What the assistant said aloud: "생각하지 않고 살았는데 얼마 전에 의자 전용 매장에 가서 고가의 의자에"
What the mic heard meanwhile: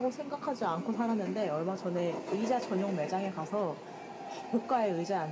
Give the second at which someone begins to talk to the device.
none

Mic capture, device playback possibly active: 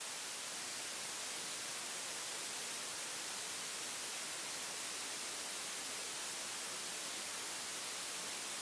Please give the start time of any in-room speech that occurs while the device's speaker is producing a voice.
none

